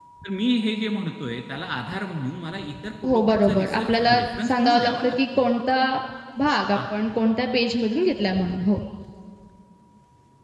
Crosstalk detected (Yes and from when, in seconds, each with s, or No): Yes, from 3.1 s